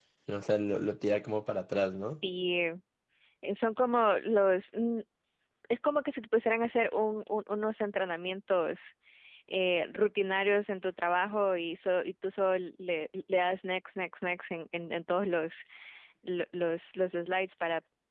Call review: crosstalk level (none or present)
none